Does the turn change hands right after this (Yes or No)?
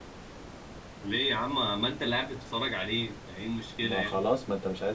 Yes